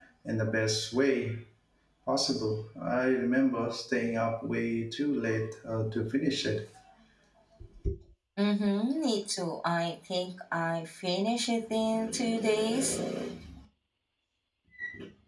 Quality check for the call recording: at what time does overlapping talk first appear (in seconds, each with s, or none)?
none